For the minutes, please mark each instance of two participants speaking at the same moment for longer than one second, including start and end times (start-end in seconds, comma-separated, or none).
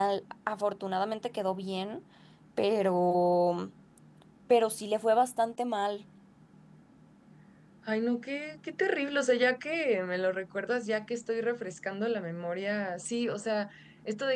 none